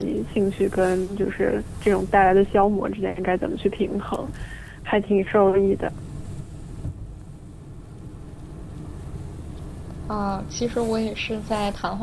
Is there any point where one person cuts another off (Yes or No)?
No